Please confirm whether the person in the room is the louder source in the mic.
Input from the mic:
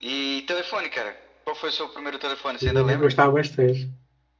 Yes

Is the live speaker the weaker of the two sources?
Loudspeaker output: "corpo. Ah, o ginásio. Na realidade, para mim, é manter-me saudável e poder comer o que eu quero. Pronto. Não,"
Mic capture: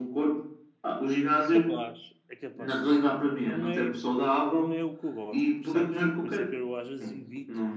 Yes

